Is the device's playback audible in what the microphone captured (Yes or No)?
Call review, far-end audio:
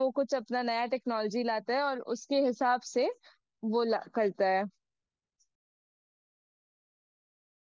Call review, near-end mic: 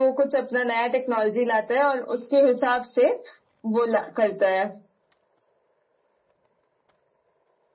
Yes